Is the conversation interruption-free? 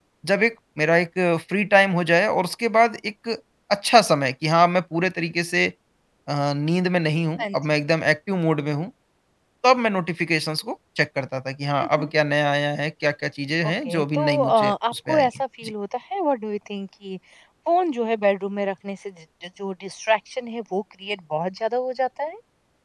No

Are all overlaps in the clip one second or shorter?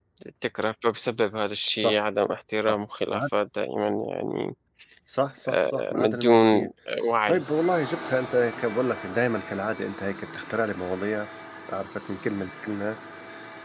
No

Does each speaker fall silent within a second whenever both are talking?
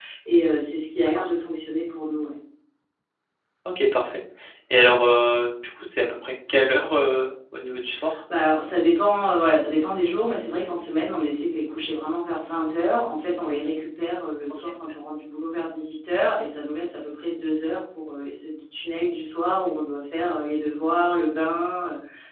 Yes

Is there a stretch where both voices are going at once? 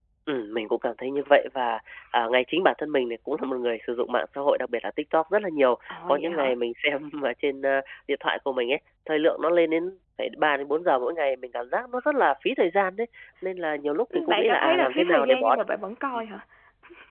Yes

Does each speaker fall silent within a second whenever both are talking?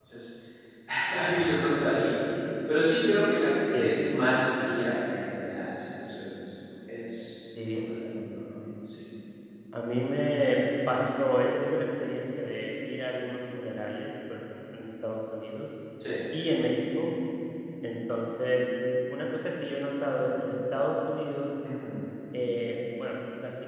Yes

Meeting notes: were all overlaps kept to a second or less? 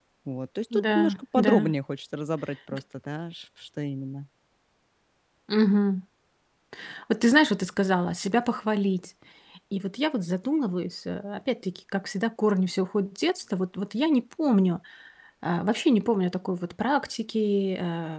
Yes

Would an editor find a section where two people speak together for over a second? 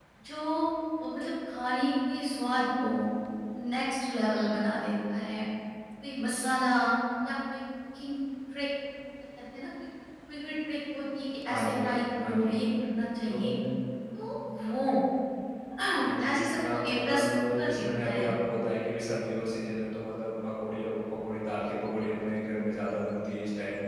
Yes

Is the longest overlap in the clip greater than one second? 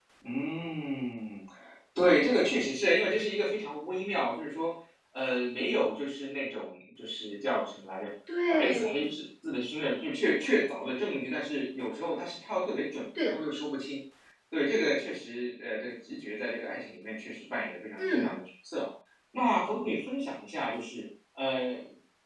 No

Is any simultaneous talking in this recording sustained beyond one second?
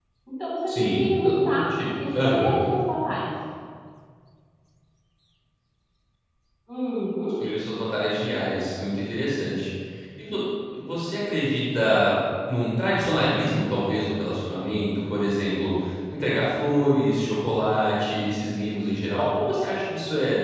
Yes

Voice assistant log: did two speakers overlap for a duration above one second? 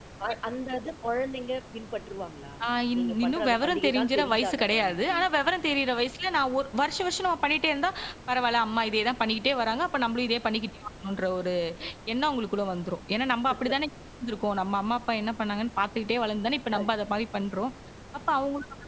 Yes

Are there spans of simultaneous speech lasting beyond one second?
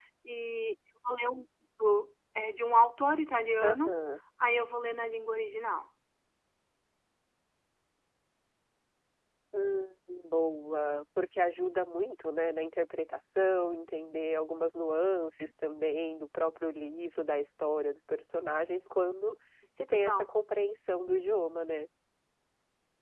No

